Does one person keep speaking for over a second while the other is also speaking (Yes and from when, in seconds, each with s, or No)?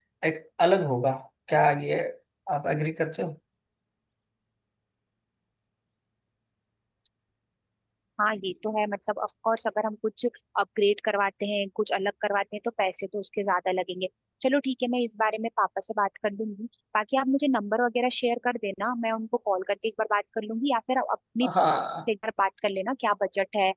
No